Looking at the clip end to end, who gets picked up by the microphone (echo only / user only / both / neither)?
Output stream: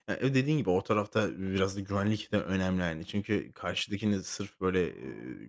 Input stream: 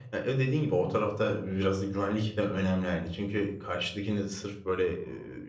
echo only